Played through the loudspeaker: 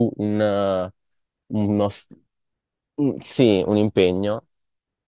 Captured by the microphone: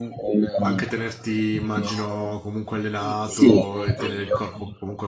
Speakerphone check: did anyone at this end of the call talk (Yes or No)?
Yes